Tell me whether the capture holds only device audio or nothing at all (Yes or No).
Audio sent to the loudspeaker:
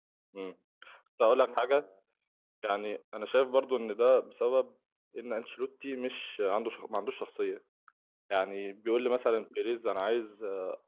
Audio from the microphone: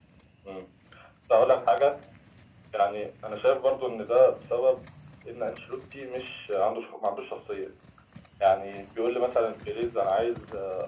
Yes